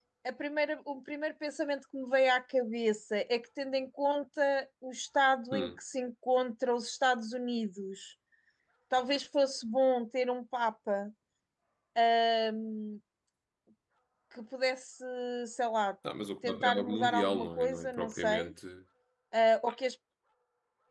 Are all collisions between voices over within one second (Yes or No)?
No